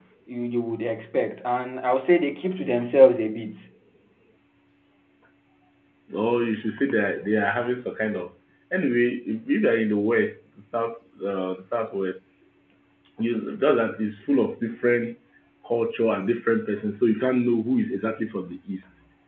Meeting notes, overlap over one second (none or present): none